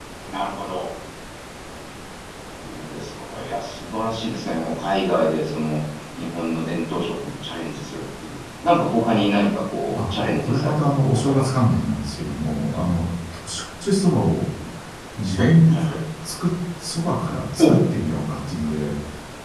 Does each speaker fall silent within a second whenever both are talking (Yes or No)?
No